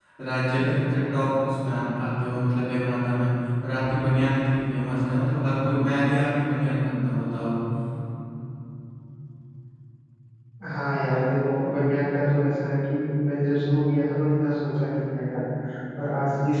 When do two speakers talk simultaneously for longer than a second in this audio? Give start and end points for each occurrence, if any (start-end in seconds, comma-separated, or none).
none